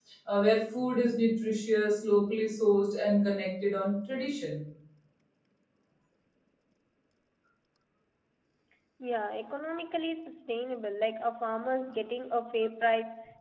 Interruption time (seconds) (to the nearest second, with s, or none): none